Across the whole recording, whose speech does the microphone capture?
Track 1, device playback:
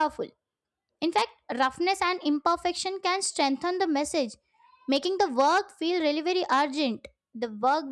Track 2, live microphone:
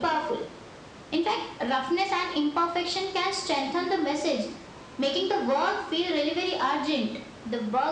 echo only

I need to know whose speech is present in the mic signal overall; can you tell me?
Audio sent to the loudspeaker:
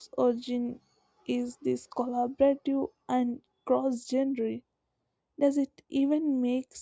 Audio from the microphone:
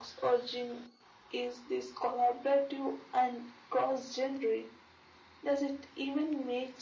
echo only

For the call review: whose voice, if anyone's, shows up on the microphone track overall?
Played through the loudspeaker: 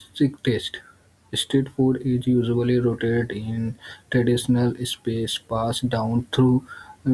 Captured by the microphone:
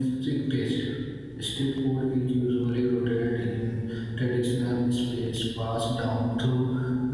echo only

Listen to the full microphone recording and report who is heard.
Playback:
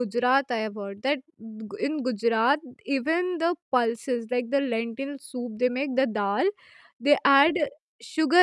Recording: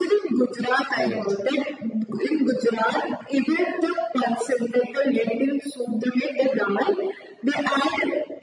both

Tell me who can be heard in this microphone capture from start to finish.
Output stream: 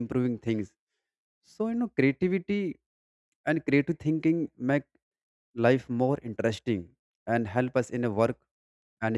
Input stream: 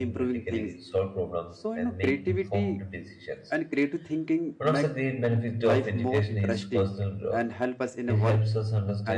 both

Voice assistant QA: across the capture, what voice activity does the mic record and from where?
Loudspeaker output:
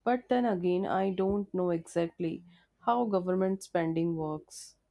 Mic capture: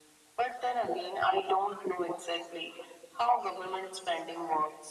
echo only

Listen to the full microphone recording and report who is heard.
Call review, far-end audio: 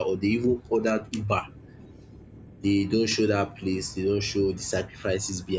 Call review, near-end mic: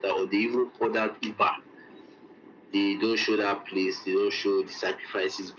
echo only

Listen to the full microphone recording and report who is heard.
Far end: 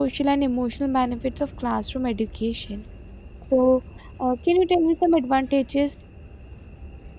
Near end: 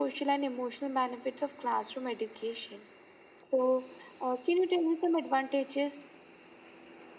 echo only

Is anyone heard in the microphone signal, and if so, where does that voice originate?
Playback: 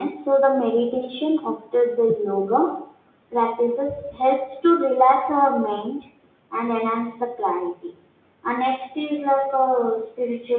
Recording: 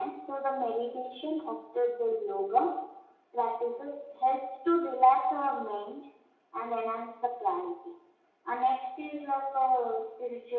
echo only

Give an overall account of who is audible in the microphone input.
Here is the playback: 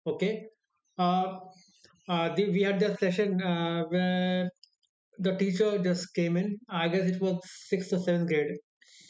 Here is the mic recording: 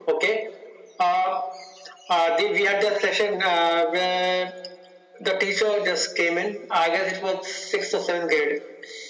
echo only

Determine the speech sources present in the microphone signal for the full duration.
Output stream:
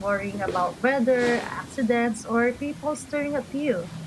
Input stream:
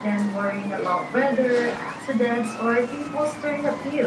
echo only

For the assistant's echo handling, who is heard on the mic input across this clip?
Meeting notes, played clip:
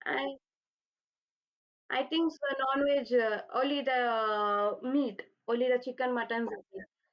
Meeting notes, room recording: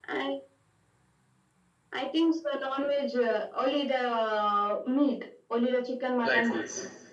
both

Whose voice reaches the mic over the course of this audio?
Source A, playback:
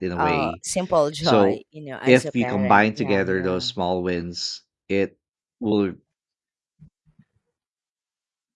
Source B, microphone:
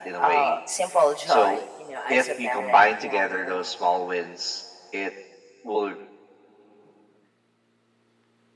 echo only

